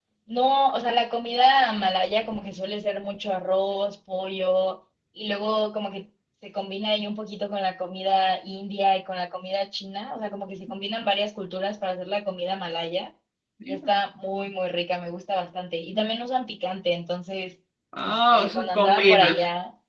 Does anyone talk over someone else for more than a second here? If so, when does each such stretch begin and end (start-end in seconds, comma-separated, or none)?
18.0-19.4